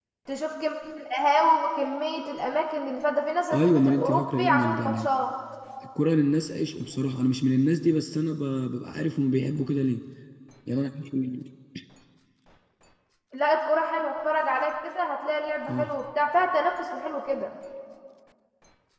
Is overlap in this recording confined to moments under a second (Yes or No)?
No